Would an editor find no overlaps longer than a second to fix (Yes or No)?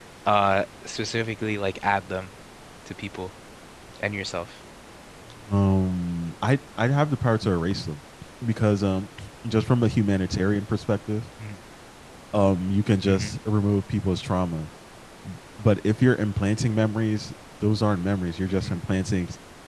Yes